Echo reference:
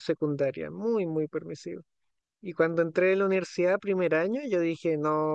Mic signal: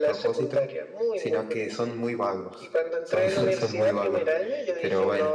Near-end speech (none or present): present